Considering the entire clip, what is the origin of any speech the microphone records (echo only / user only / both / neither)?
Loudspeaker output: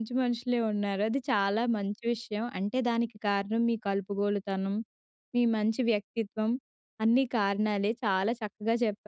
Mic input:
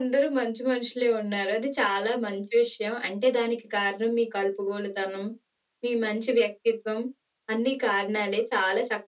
echo only